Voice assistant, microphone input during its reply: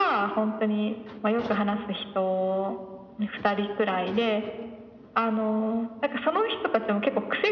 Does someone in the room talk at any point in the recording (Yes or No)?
No